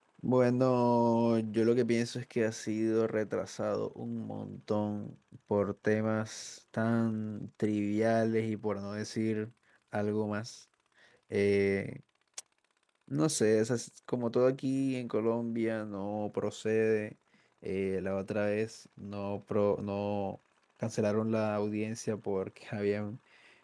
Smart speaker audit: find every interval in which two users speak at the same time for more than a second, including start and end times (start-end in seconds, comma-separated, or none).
none